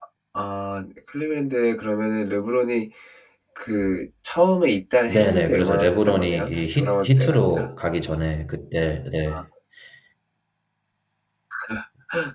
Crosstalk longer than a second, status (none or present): present